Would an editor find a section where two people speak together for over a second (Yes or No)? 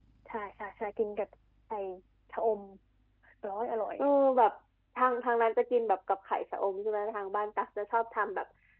No